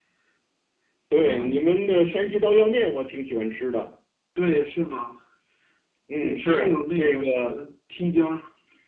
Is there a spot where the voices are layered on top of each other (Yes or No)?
Yes